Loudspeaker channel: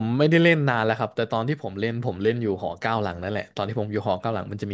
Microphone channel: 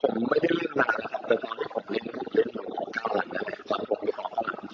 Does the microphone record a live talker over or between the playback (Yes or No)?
No